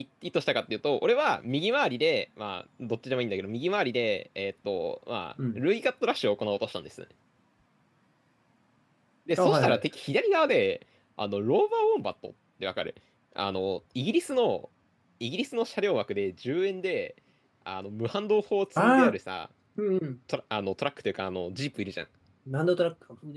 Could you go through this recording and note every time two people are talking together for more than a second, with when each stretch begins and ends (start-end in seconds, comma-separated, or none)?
none